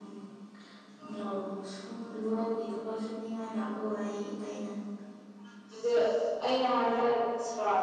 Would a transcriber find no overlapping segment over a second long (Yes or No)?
Yes